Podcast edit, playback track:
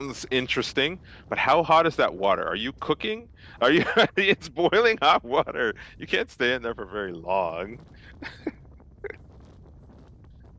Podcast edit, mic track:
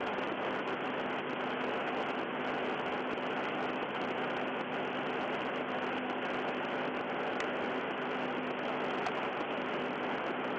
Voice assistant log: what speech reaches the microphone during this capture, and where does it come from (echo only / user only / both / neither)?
neither